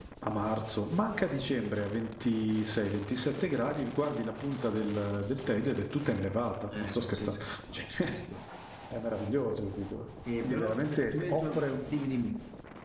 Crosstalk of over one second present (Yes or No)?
Yes